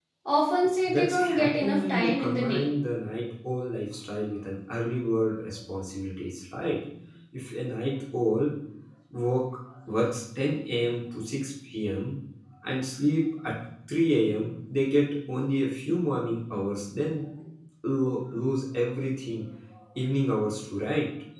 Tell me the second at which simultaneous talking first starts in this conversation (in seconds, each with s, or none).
0.9 s